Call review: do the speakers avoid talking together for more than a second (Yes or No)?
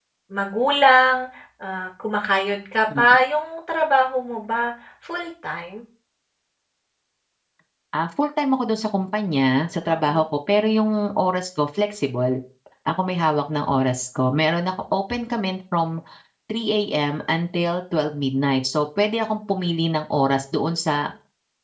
Yes